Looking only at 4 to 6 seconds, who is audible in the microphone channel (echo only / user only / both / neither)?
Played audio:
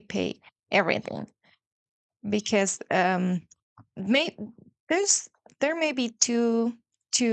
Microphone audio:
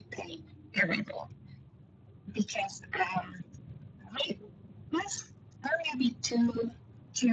echo only